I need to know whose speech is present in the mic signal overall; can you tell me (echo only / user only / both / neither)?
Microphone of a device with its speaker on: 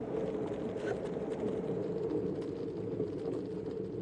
neither